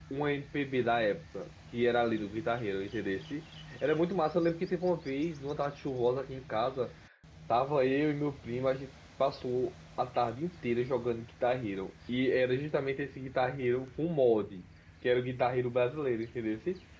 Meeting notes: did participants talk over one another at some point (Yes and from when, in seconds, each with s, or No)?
No